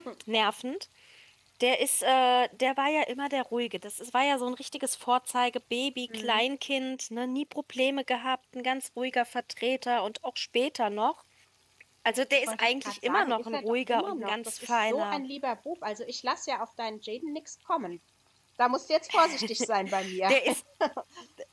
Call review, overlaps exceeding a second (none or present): present